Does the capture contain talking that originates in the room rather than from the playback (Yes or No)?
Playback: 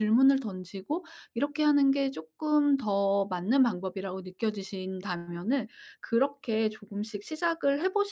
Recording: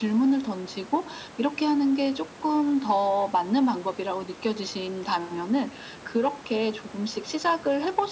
No